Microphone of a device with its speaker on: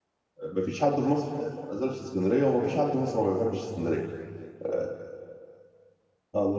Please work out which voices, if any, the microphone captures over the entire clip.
user only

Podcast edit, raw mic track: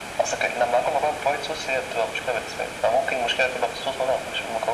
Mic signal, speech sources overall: echo only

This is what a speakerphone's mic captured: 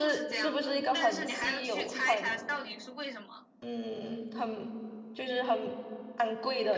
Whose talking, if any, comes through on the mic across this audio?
both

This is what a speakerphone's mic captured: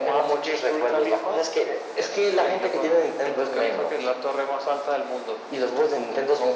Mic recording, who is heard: echo only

